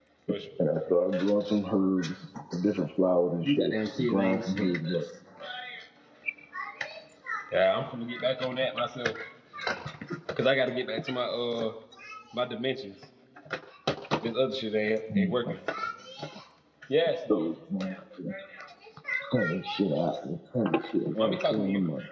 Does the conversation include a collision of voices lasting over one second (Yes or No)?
Yes